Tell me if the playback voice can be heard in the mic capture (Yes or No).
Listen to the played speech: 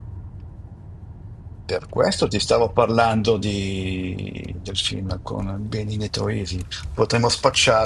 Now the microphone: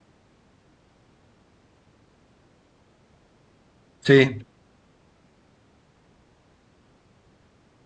No